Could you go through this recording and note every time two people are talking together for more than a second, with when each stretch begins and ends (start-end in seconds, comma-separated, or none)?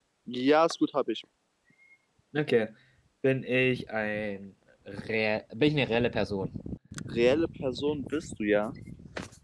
none